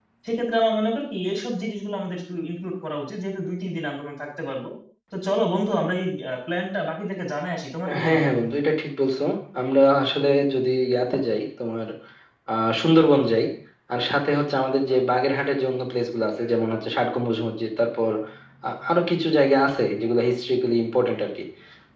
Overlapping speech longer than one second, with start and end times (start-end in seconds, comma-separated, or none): none